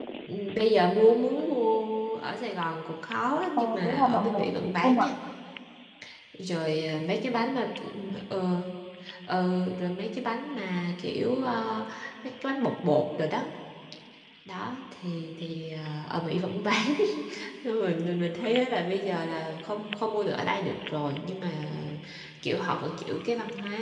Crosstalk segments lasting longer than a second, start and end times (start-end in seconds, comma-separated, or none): 3.6-5.1